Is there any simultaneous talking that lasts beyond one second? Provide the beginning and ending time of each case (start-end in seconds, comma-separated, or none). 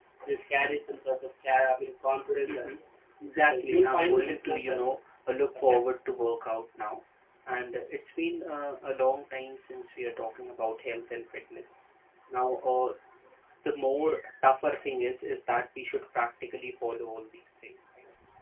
3.5-4.8